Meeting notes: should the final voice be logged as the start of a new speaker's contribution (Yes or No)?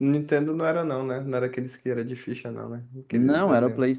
Yes